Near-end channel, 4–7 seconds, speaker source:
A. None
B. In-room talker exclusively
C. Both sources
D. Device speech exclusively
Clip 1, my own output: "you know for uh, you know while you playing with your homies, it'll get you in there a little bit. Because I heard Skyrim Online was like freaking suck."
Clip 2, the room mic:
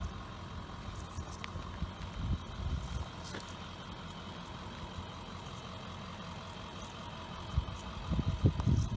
A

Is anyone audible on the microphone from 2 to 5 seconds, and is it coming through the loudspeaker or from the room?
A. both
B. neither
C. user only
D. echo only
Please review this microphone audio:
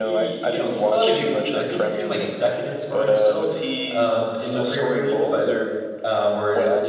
A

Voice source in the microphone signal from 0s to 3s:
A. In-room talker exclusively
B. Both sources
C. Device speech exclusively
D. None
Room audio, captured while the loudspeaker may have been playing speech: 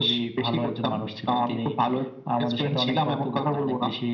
C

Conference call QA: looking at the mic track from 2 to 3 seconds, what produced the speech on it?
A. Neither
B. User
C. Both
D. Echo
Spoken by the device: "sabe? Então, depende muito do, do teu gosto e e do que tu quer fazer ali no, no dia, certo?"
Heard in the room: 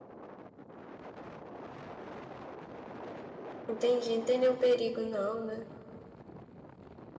A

